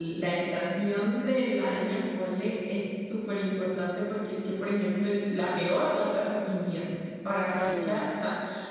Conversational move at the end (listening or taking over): listening